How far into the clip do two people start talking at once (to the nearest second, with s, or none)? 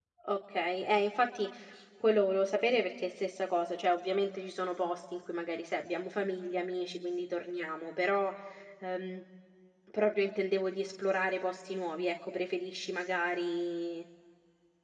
none